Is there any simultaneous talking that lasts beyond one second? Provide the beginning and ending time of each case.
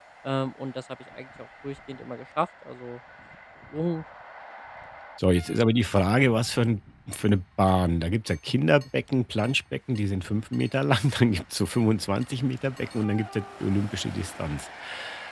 none

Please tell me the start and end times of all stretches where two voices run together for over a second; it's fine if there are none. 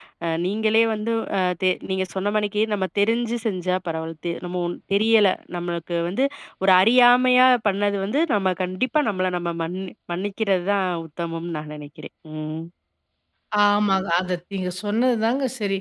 none

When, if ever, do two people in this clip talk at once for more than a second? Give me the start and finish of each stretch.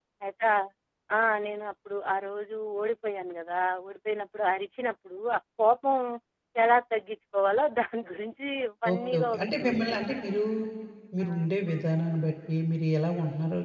8.9-10.4

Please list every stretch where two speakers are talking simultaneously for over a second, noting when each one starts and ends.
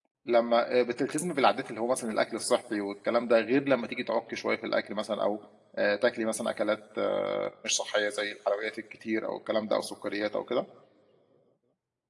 none

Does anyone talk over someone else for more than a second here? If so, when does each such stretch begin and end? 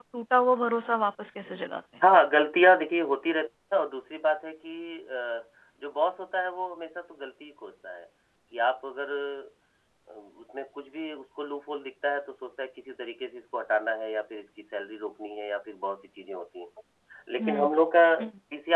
none

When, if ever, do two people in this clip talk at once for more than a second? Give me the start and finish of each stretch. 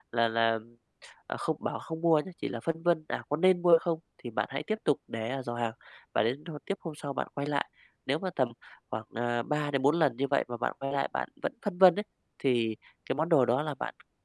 none

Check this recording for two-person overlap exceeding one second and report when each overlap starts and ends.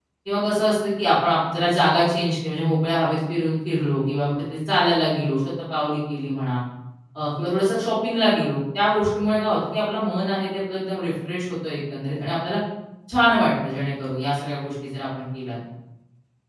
none

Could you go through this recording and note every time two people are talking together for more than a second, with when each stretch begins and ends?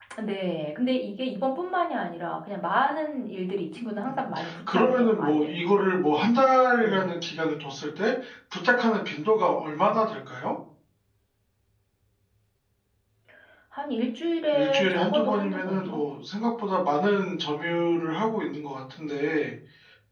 4.0-5.5, 14.5-16.0

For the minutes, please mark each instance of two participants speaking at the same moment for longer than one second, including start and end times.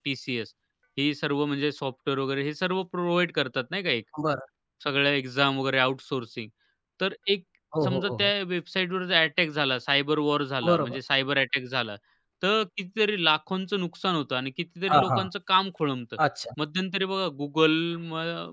none

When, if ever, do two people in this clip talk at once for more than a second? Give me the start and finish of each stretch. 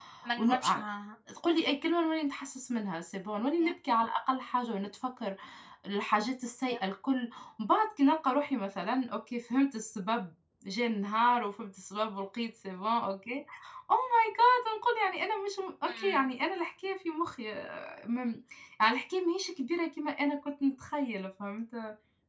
none

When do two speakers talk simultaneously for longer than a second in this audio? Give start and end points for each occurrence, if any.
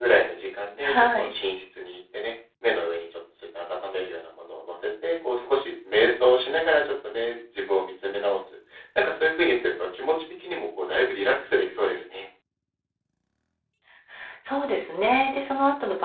none

